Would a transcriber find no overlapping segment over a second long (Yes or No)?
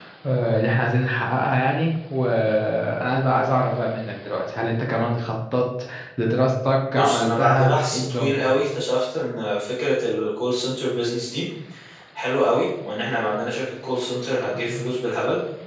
No